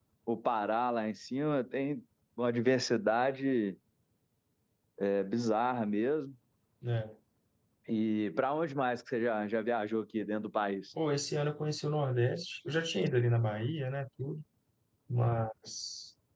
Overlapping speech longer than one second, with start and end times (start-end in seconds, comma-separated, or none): none